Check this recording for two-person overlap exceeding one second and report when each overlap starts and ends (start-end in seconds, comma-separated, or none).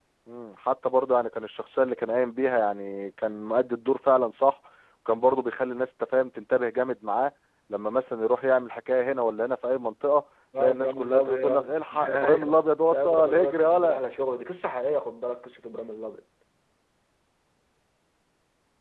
10.6-14.0